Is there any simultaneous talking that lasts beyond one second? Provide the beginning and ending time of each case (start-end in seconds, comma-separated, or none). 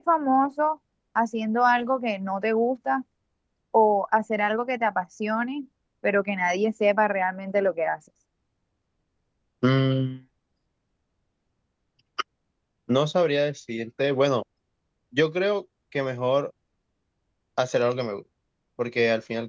none